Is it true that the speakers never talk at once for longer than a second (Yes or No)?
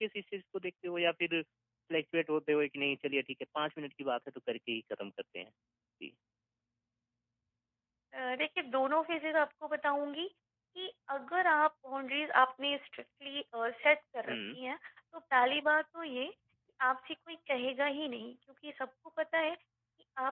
Yes